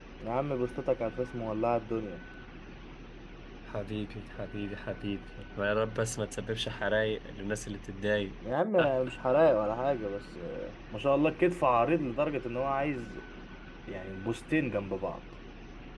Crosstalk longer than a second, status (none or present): none